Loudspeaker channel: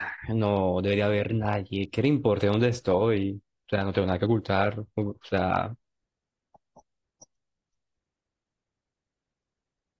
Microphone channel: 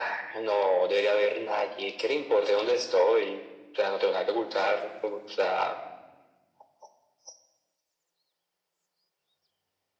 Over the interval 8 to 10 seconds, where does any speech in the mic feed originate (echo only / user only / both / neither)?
neither